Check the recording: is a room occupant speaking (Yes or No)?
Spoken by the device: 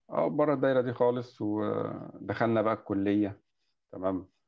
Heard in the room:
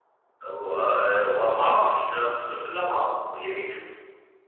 Yes